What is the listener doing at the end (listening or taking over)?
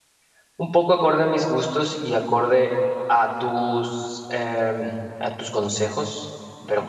taking over